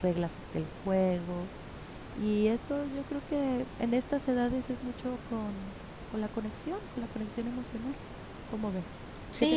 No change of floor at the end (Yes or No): No